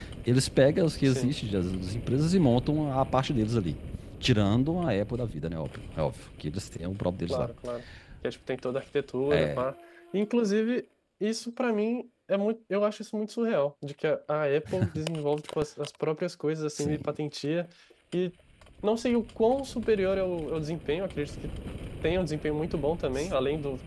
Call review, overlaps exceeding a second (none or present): none